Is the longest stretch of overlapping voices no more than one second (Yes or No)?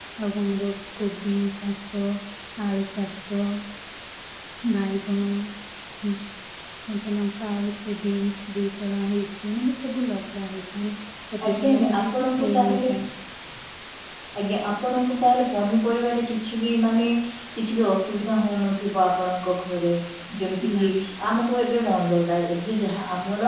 No